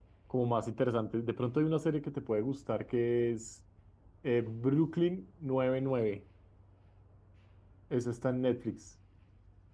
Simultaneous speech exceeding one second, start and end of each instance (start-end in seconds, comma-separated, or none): none